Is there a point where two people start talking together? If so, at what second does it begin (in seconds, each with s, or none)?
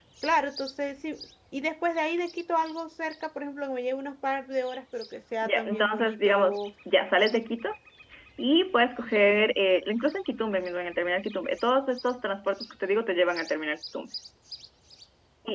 5.4 s